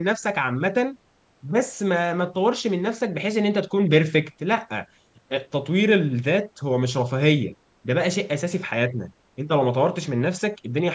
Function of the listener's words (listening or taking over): listening